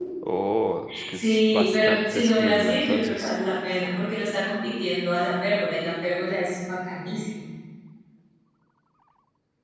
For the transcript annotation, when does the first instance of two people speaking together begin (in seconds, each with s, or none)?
1.1 s